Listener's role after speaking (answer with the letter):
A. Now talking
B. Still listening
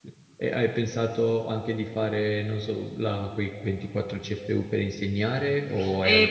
A